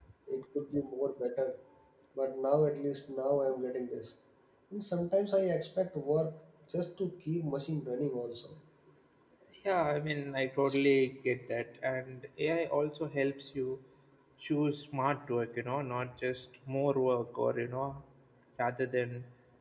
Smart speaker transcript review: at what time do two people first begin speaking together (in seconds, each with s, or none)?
none